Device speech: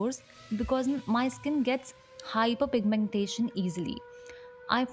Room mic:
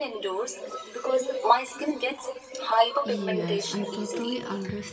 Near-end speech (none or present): present